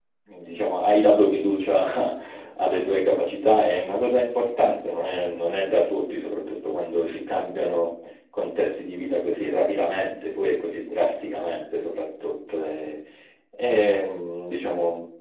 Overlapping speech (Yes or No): No